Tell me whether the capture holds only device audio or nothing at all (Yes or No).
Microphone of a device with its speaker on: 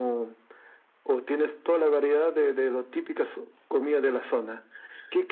Yes